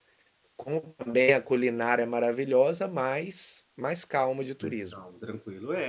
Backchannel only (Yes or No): No